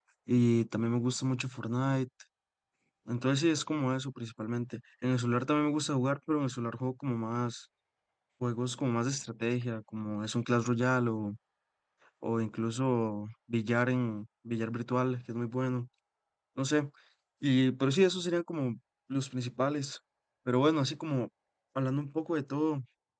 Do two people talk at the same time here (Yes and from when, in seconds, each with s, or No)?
No